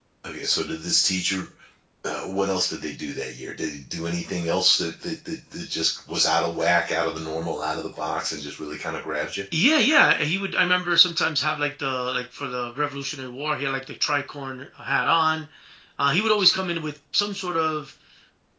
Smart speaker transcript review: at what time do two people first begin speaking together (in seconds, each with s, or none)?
none